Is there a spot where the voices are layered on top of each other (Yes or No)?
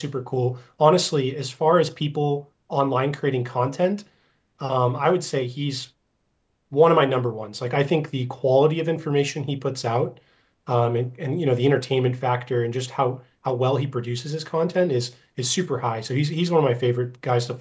No